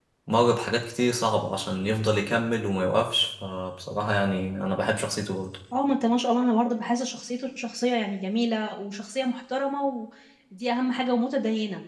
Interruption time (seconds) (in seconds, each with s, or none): none